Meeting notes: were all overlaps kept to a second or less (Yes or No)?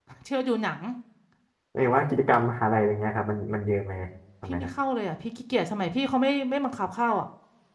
Yes